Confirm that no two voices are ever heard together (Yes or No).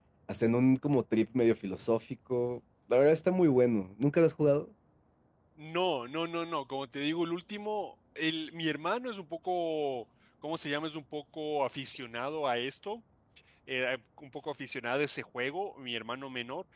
Yes